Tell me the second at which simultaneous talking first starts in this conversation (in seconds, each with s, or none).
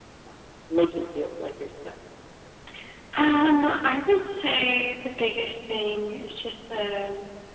none